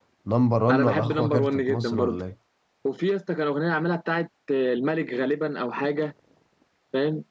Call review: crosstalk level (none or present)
present